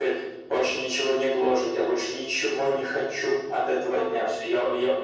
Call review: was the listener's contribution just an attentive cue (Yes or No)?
Yes